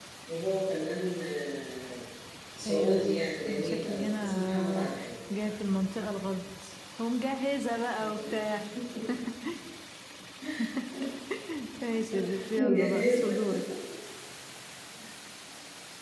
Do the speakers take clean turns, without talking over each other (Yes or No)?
No